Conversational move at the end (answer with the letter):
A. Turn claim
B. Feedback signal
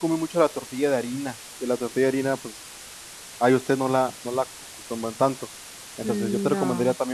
B